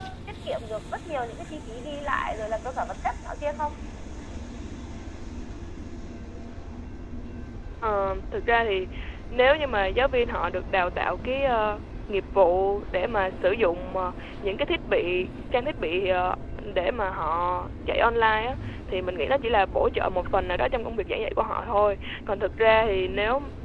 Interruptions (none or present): none